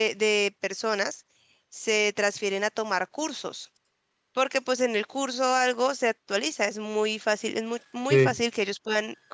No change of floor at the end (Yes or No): Yes